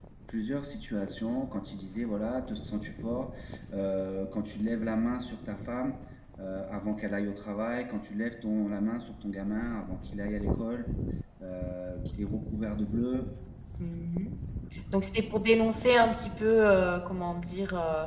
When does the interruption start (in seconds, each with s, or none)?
none